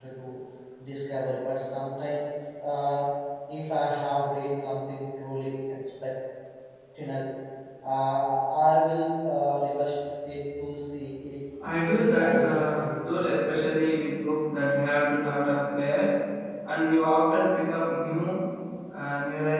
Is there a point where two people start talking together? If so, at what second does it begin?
12 s

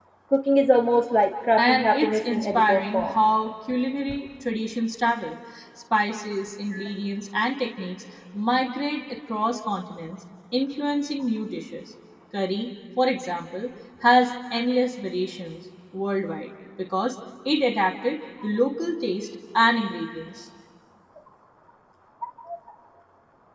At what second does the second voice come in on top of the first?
2 s

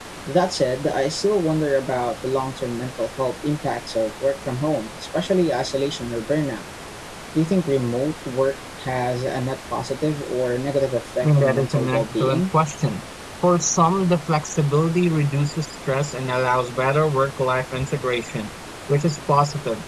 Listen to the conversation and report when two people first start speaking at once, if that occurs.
11 s

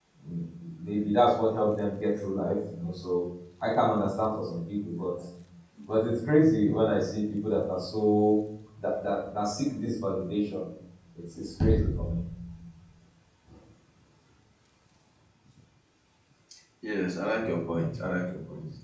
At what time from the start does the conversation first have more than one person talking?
none

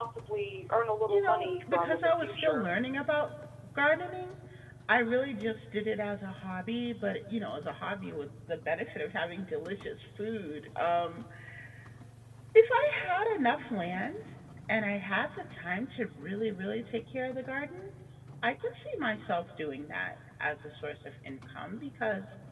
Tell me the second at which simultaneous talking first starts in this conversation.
1 s

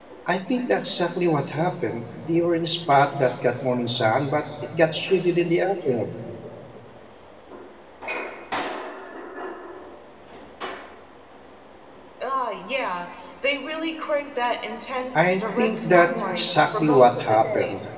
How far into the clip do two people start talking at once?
15 s

